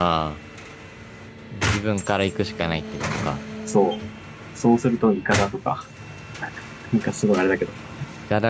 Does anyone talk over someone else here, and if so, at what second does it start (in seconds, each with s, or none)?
none